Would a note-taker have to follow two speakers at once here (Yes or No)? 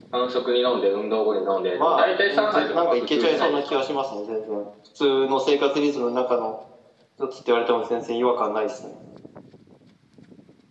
Yes